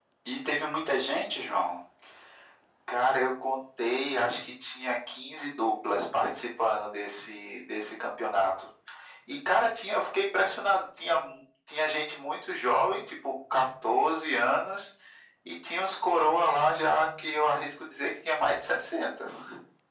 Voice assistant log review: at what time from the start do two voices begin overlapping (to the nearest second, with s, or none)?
none